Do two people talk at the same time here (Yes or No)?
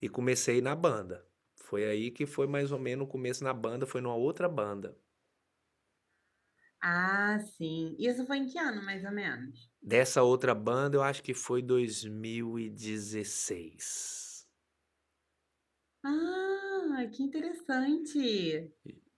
No